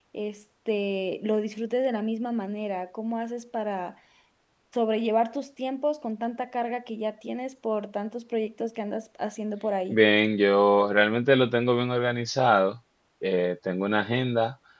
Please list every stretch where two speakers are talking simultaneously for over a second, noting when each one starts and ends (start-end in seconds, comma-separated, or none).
none